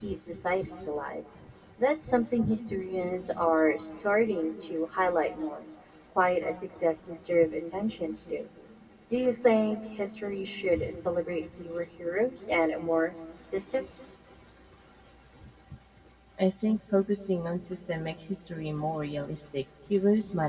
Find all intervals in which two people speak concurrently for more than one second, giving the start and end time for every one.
none

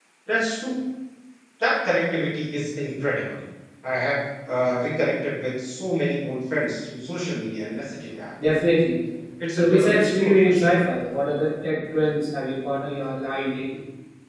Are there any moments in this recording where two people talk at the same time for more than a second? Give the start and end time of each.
9.5-10.8

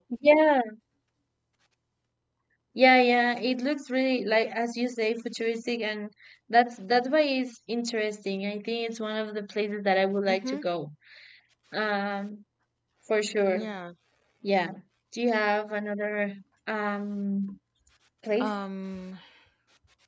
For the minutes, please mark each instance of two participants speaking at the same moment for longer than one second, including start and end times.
none

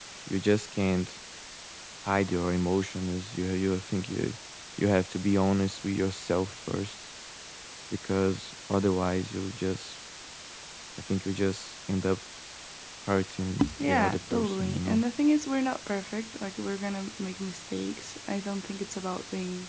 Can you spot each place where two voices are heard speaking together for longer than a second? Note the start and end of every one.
13.8-15.0

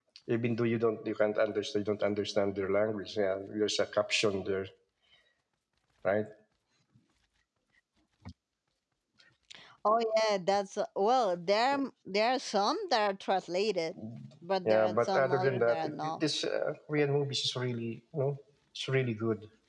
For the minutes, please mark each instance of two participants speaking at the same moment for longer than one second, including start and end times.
14.7-16.2

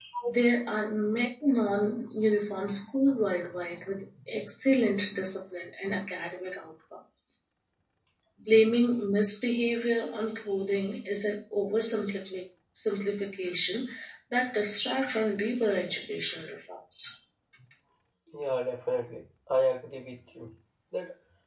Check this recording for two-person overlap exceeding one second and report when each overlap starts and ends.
none

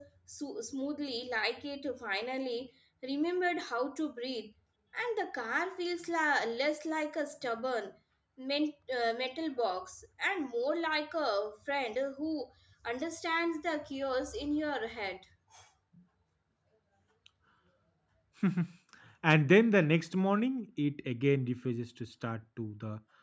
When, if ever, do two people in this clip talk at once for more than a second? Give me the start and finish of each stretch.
none

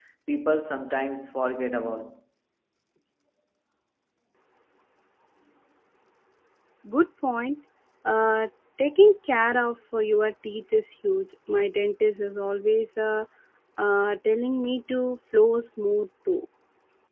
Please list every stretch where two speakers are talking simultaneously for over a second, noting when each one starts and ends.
none

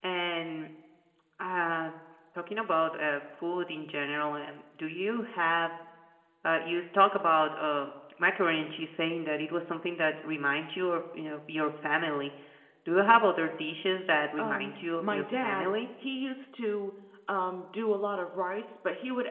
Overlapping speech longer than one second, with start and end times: 14.4-15.7

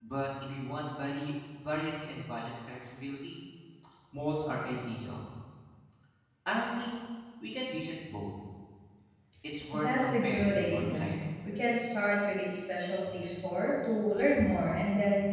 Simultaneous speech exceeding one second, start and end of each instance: 9.7-11.1

